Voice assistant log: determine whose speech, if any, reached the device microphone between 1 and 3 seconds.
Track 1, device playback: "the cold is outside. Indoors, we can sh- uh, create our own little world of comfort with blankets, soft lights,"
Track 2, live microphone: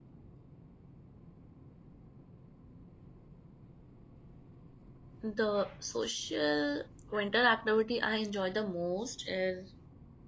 neither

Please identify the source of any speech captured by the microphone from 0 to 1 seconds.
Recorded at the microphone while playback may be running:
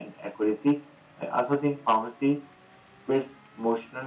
echo only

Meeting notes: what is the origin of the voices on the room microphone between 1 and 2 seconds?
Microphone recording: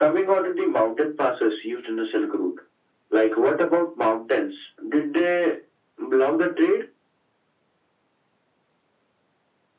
echo only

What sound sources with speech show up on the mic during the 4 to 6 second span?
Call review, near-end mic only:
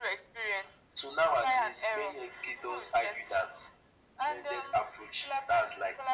echo only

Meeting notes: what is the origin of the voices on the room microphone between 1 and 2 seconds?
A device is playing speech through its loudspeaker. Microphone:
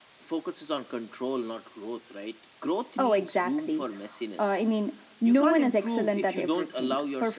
echo only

